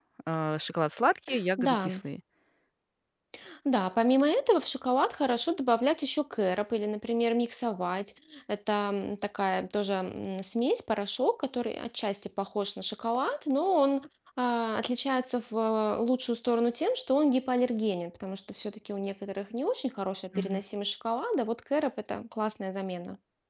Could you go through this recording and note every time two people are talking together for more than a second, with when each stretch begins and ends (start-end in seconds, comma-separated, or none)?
none